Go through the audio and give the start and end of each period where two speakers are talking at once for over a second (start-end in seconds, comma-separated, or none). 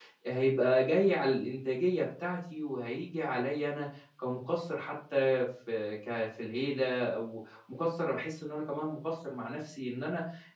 none